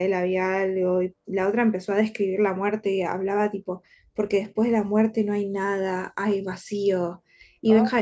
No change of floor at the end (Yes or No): Yes